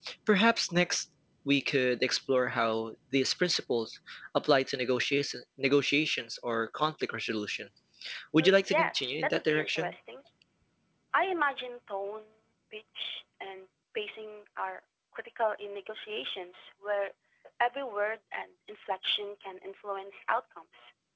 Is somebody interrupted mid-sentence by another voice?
Yes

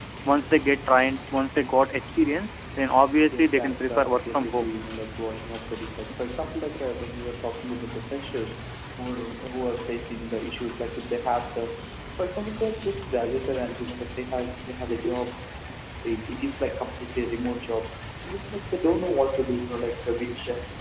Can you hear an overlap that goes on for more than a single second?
Yes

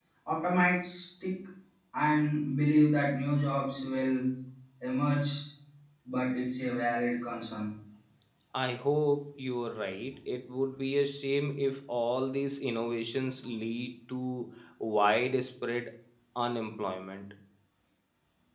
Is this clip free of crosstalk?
Yes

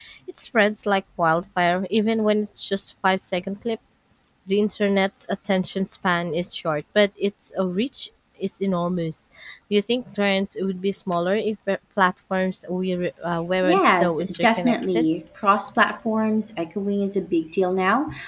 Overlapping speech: Yes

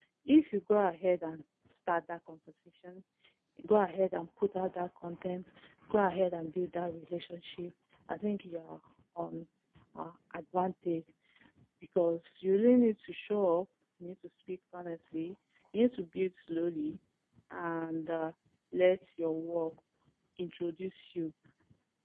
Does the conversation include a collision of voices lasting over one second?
No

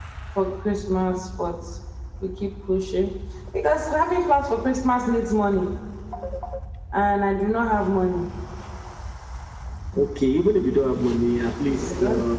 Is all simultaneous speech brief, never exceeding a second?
Yes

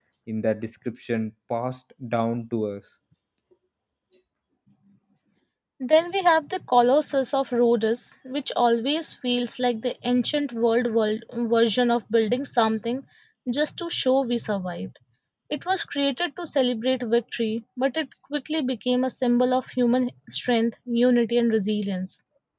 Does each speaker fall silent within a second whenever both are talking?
Yes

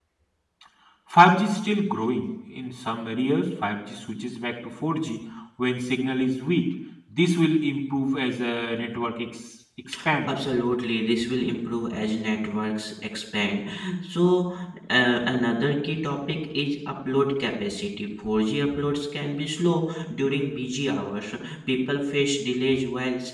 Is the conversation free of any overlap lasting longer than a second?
Yes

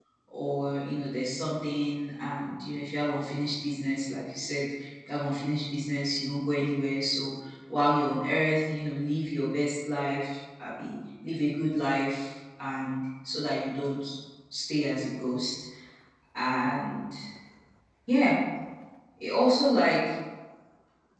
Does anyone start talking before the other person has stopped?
No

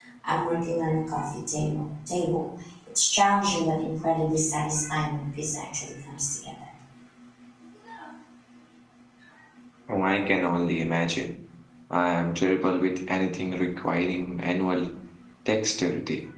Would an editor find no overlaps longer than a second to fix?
Yes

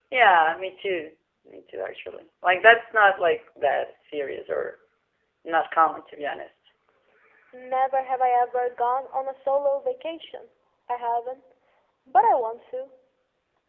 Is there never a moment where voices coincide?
Yes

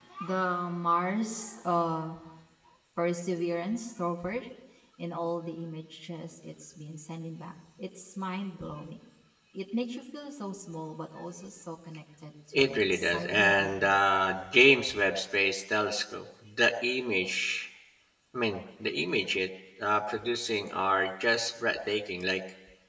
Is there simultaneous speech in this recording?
Yes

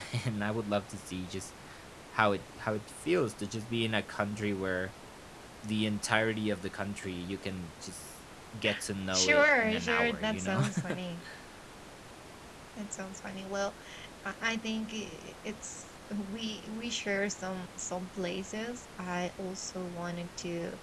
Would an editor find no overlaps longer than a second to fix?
No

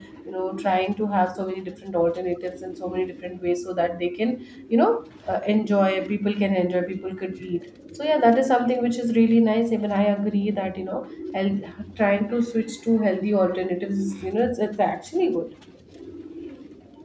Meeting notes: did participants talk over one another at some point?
No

